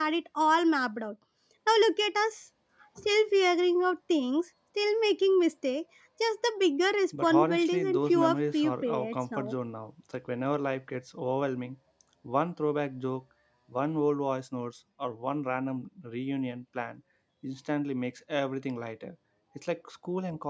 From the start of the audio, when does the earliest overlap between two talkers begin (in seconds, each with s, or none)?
7.1 s